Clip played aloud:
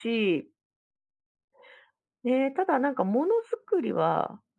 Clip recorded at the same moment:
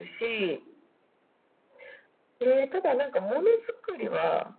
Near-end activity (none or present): none